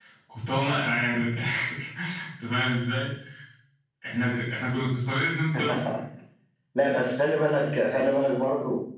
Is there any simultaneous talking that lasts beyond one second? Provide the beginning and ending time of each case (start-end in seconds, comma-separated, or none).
none